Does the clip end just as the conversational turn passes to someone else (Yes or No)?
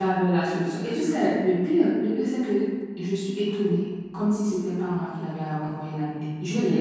Yes